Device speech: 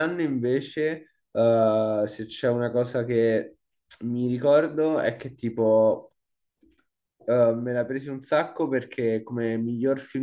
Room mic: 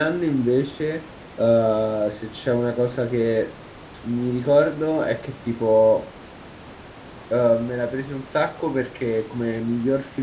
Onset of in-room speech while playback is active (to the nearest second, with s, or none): none